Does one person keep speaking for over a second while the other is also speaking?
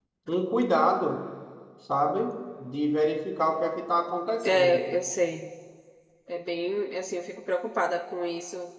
No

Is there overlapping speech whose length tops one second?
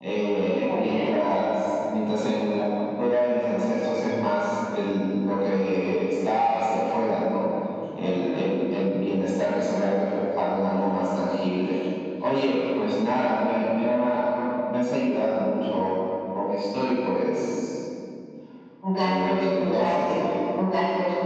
Yes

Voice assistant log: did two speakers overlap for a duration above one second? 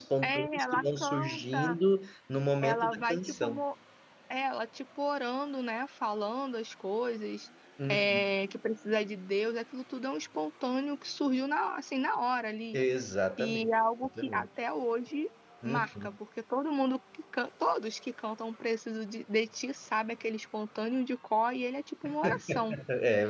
Yes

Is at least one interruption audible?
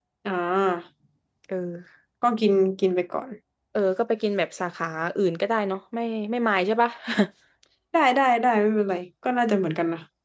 No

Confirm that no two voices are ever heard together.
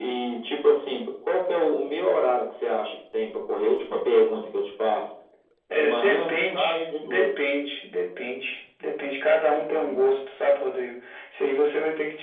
No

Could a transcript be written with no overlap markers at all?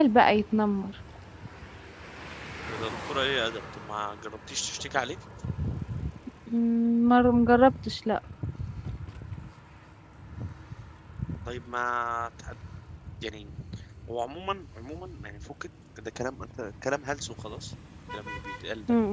Yes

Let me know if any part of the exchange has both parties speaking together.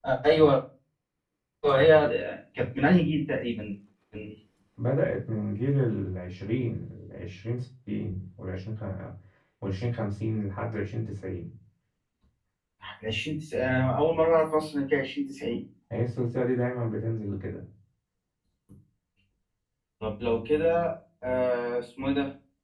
No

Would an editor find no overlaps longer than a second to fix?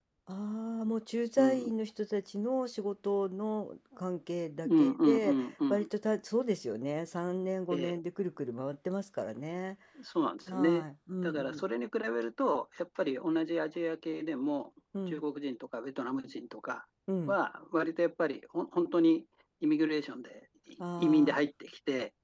No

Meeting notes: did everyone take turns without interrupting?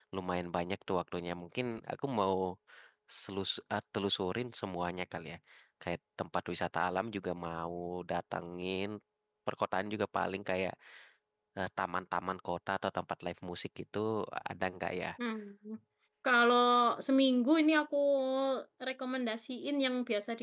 Yes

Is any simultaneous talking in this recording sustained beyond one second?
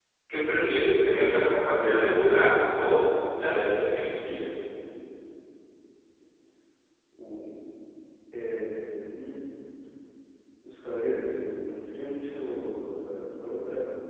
No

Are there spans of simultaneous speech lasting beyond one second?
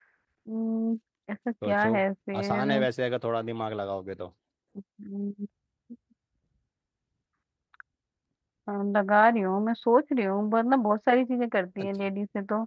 No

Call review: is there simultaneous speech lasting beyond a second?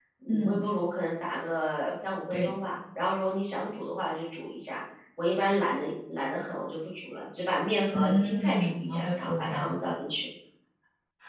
Yes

